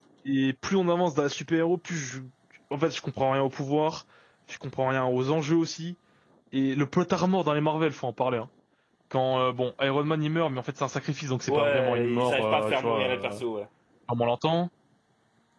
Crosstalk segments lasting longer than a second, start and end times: 11.5-13.4

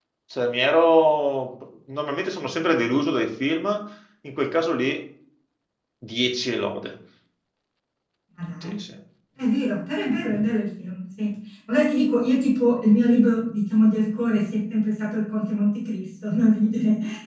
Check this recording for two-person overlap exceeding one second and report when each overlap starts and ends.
none

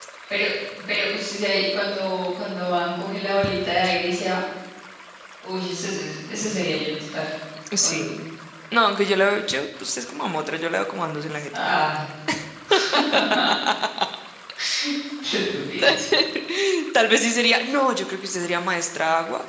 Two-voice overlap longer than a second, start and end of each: none

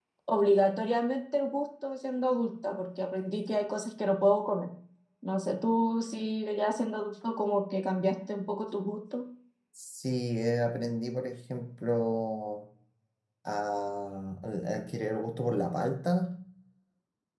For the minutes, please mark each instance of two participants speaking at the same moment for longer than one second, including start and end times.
none

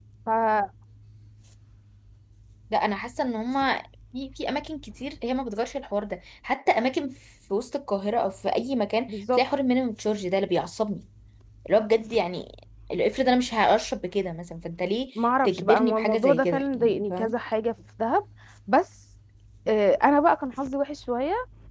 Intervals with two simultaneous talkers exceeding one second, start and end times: 15.4-17.3

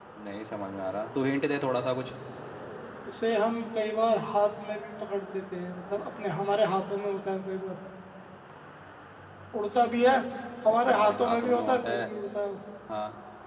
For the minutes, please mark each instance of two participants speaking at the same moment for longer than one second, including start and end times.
10.8-12.0

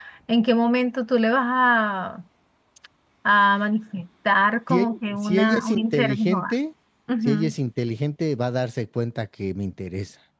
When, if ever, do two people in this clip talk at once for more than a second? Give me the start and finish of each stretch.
4.7-6.5

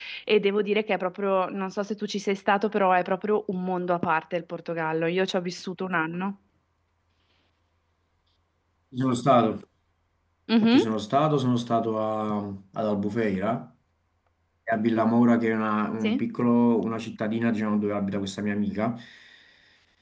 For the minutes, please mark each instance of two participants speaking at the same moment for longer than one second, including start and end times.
none

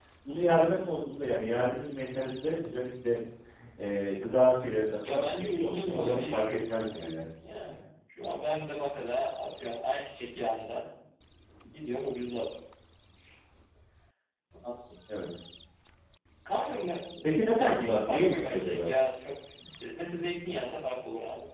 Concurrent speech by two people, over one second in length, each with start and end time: 5.0-7.1, 17.5-18.9

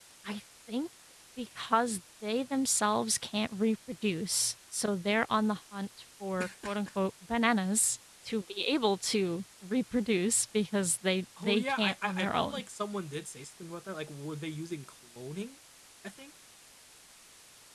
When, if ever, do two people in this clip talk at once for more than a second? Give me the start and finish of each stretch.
11.4-12.6

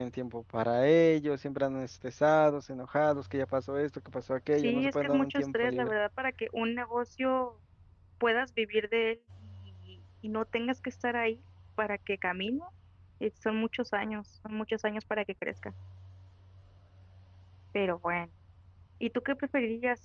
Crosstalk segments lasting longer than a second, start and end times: 4.6-5.9

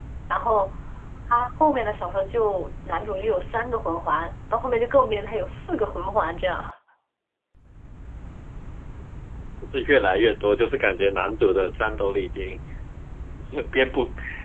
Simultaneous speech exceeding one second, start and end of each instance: none

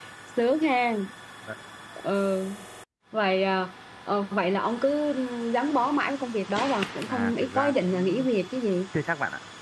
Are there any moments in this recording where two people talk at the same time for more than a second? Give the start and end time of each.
7.1-8.3

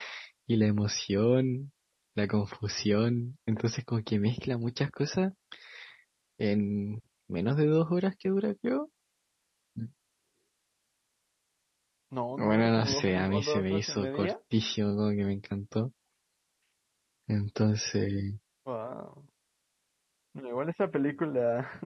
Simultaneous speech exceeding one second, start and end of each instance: 12.4-14.3

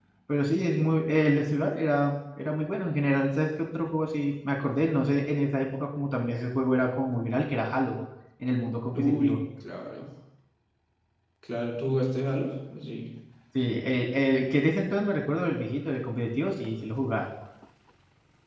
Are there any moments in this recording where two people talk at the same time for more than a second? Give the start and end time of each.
none

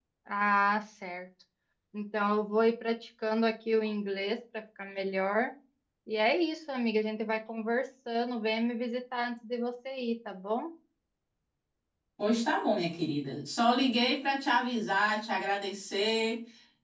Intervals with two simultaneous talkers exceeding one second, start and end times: none

